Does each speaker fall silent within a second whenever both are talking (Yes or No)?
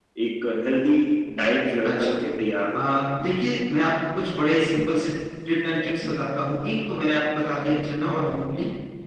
Yes